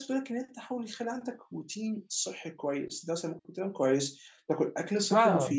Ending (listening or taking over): listening